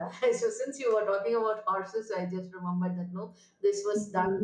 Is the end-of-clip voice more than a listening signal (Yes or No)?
Yes